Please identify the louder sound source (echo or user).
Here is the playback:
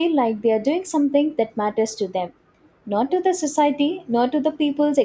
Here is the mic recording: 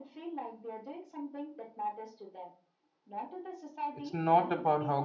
user